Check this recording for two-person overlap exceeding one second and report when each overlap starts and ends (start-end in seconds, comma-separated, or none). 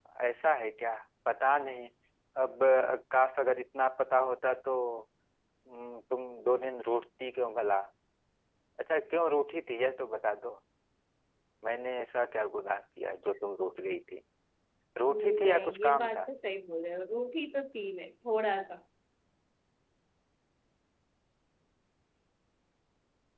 15.1-16.3